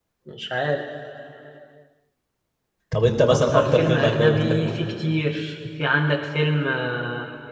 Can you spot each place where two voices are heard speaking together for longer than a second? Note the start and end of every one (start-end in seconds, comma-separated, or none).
3.3-4.8